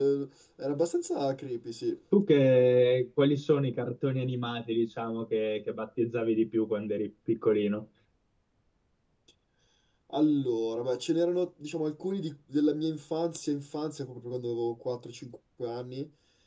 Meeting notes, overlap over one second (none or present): none